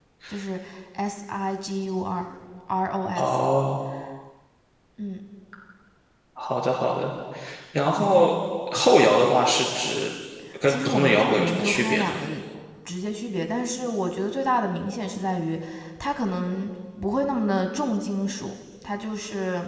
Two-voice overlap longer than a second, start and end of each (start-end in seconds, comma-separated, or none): 10.7-12.2